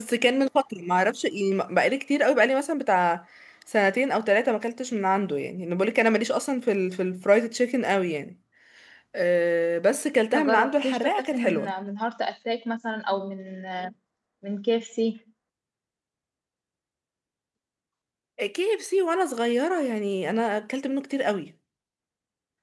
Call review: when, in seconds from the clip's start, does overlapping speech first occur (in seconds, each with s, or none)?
10.3 s